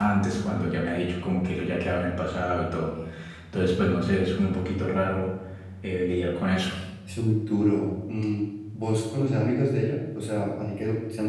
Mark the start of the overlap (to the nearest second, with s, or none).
none